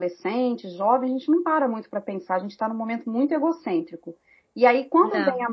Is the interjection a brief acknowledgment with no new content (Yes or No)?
Yes